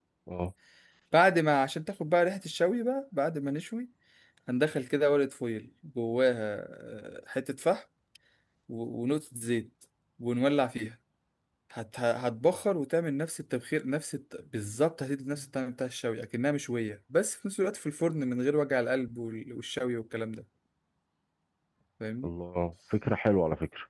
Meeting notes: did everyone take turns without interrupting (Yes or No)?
Yes